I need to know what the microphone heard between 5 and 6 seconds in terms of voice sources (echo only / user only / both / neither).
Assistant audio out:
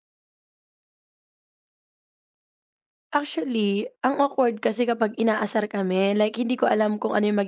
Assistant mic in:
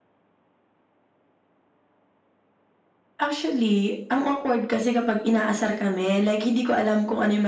echo only